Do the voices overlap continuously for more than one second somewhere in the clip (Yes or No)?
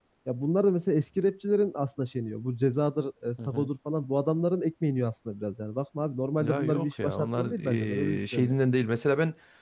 Yes